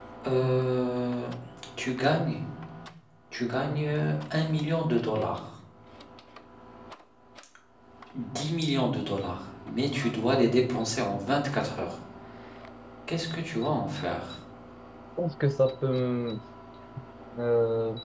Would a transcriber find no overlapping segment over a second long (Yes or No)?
Yes